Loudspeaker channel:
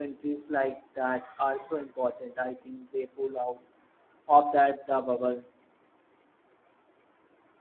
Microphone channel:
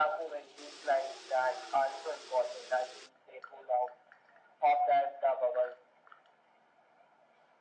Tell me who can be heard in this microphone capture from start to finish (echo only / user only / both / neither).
echo only